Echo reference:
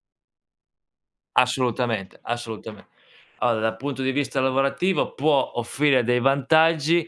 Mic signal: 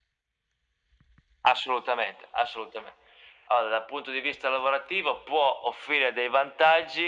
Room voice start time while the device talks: none

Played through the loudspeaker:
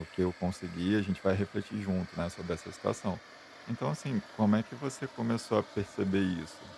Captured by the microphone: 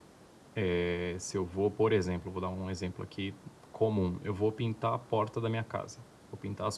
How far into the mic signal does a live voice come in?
0.6 s

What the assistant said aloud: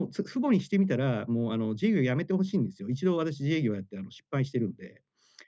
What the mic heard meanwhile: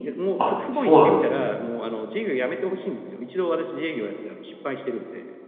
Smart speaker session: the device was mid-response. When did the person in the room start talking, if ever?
0.4 s

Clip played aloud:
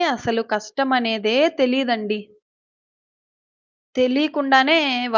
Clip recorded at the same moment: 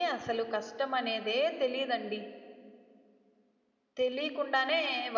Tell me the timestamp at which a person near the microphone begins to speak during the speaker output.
none

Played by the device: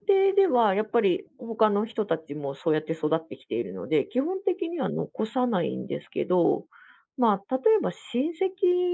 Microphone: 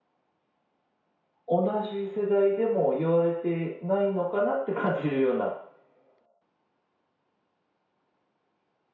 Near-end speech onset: 1.5 s

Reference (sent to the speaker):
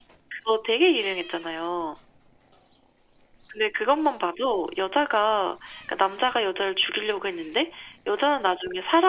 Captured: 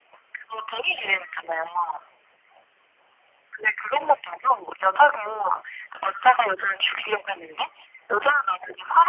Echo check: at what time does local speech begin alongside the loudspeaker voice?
none

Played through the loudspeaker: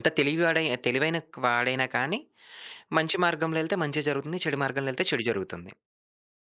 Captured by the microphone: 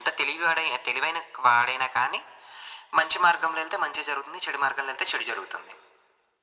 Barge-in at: none

